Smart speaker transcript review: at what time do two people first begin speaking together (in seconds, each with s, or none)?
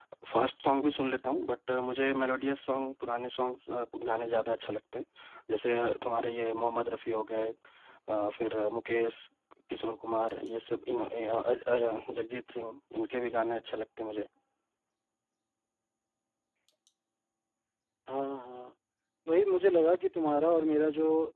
none